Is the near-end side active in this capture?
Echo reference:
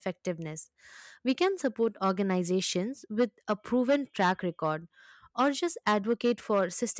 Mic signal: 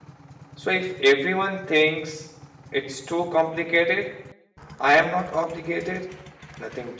Yes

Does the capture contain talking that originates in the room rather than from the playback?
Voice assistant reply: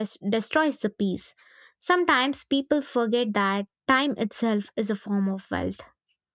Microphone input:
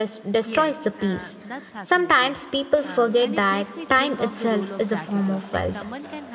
Yes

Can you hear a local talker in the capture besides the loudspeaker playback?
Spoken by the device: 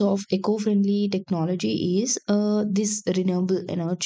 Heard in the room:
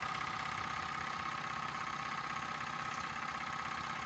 No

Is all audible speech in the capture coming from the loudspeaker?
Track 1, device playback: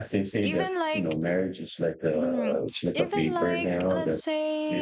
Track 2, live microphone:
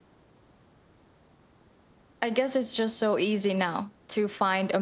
No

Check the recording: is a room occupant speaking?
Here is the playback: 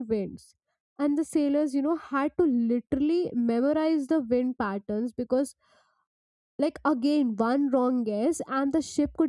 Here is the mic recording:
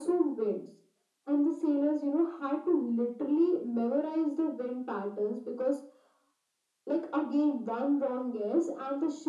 No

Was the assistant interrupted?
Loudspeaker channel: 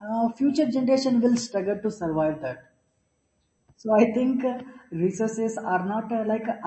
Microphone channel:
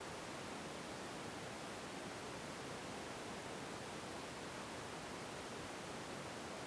No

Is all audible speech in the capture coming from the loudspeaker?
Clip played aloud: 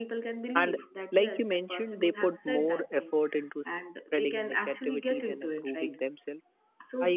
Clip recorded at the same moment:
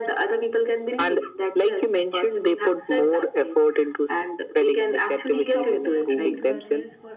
No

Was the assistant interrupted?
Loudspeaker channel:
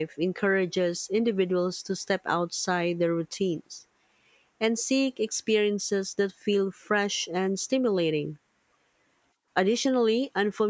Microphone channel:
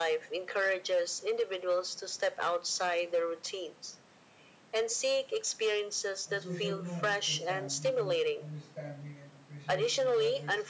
Yes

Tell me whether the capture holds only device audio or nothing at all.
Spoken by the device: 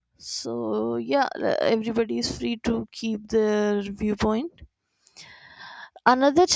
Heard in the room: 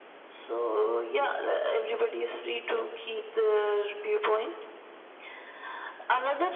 Yes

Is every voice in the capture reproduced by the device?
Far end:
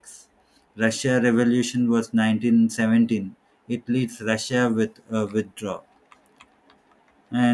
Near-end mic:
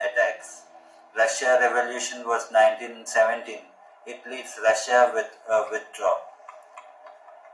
Yes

